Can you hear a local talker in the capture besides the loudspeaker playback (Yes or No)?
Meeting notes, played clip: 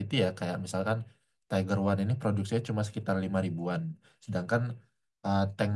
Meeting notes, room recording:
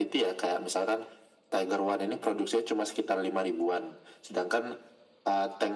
No